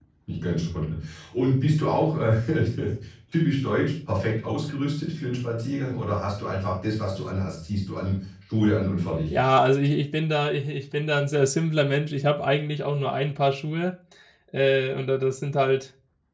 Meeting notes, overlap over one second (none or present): none